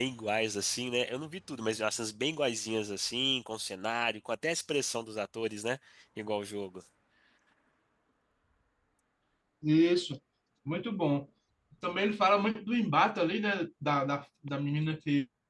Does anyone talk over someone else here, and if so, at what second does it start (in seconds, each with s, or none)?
none